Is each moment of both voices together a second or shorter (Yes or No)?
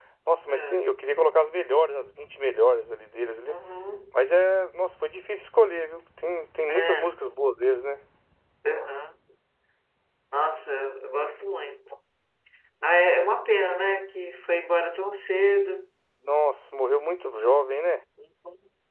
Yes